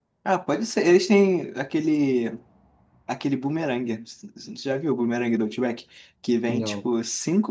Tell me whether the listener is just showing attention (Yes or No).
Yes